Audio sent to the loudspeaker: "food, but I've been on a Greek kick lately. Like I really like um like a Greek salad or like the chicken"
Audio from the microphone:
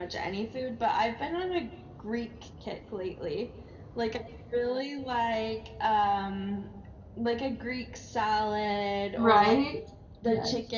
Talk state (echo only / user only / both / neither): both